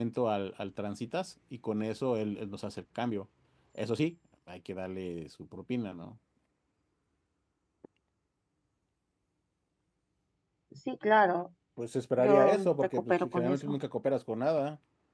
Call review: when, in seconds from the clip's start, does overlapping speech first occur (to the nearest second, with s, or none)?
12 s